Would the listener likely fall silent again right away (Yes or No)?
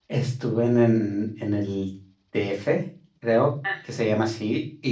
Yes